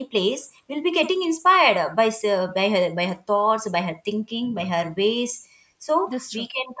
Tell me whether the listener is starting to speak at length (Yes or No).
No